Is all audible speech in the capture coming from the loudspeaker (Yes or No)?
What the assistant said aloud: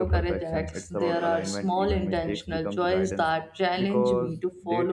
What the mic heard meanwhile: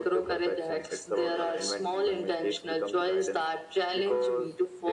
Yes